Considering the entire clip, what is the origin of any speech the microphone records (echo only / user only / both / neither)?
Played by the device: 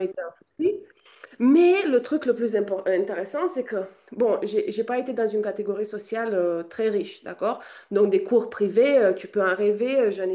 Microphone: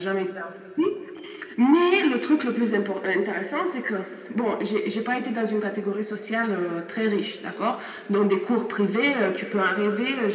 echo only